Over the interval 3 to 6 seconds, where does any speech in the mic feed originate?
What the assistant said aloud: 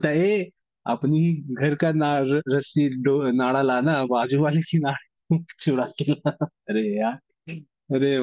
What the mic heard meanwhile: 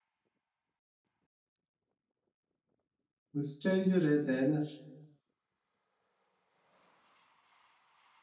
user only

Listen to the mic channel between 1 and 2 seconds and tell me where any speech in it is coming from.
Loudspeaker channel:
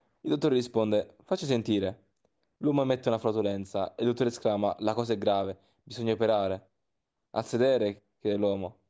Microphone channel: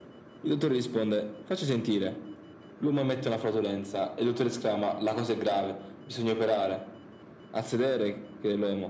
echo only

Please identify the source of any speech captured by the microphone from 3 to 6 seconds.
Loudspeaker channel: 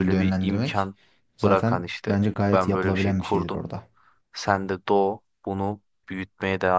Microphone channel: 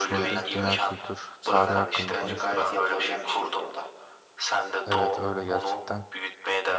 both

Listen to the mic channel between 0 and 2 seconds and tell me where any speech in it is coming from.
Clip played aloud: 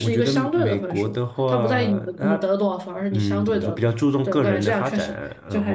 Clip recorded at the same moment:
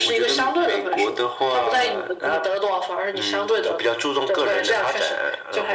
echo only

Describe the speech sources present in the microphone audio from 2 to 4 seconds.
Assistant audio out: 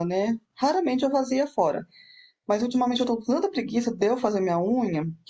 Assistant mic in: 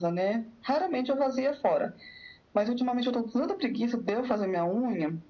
echo only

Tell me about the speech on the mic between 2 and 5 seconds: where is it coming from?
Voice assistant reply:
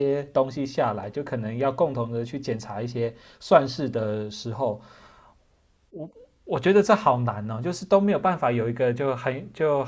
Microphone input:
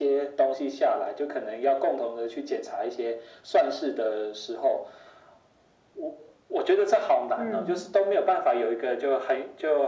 echo only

